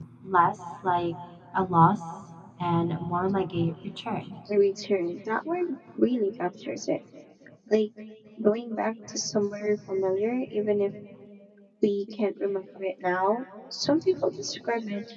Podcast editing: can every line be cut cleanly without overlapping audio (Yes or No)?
Yes